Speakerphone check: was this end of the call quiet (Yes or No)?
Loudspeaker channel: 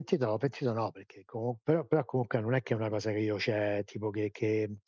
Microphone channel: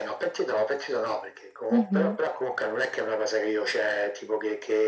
No